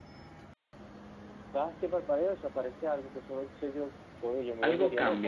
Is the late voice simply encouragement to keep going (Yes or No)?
No